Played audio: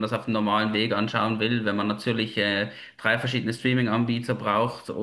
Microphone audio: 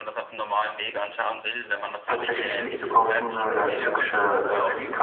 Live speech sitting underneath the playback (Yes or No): No